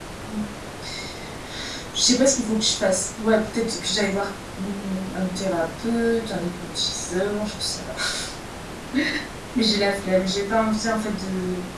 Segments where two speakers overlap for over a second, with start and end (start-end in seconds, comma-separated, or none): none